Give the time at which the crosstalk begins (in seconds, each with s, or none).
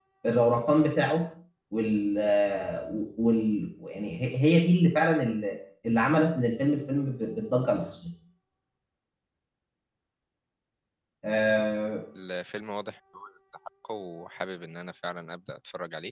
none